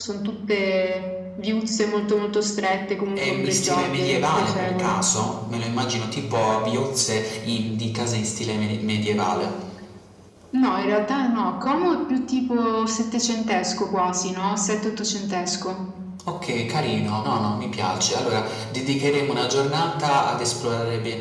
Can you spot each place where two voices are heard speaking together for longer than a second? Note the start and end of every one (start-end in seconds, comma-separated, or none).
3.2-5.0